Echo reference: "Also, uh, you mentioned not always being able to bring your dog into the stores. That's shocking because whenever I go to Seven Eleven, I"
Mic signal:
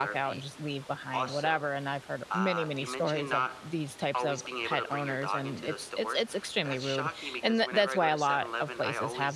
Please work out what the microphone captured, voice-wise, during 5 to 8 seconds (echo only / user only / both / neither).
both